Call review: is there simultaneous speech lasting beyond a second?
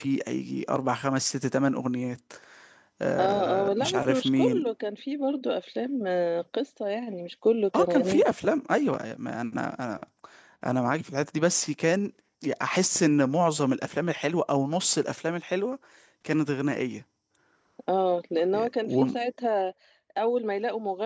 Yes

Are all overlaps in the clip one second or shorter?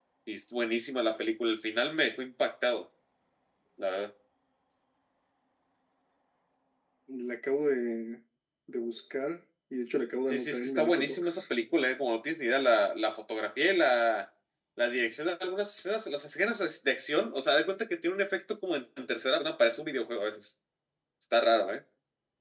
No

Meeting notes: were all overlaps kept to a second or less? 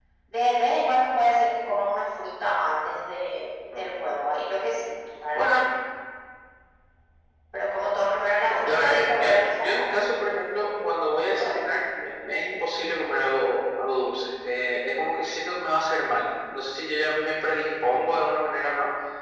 No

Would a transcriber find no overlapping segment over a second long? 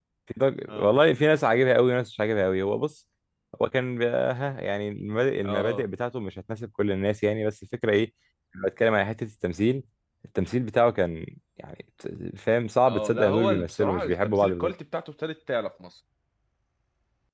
No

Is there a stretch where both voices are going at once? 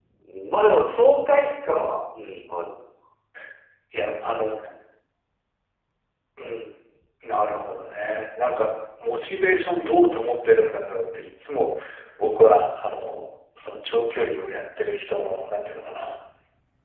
No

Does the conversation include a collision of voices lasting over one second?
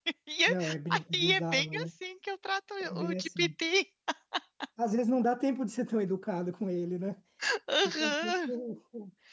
Yes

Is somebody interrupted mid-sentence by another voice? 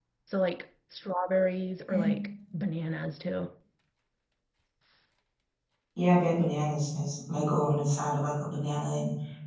No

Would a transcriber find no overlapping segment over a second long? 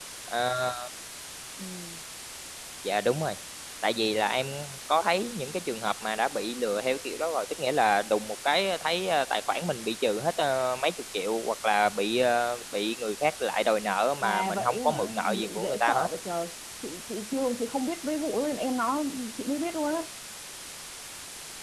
No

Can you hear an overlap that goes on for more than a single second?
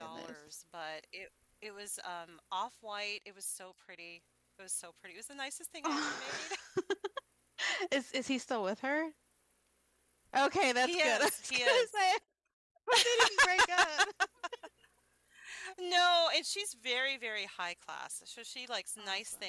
Yes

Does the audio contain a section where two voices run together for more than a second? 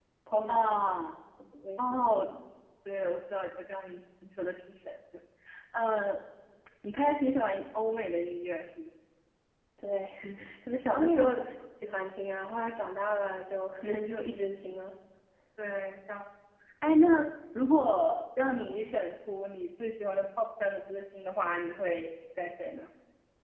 No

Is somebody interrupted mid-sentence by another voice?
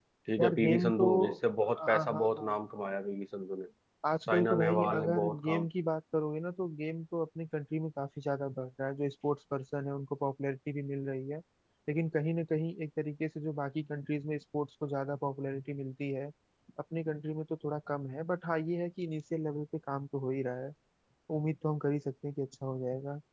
Yes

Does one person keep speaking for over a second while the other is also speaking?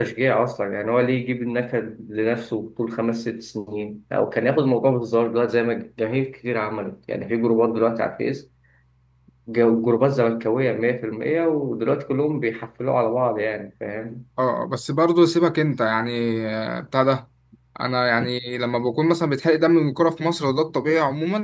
No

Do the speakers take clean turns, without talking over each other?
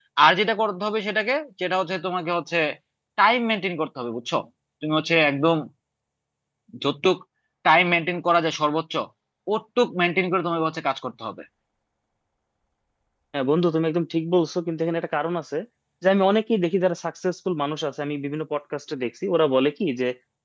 Yes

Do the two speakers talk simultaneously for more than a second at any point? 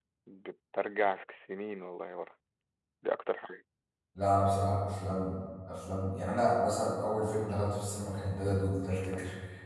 No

